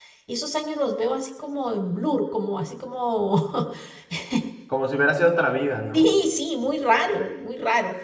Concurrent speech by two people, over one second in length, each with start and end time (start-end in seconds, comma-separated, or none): none